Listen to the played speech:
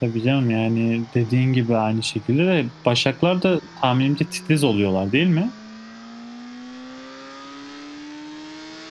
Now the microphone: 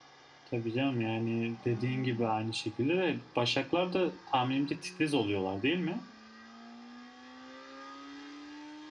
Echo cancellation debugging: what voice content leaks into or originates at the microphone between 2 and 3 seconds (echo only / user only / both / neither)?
both